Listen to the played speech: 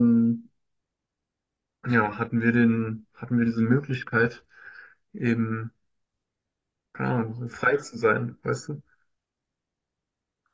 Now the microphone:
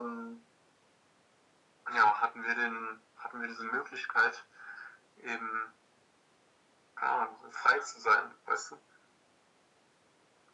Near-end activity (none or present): none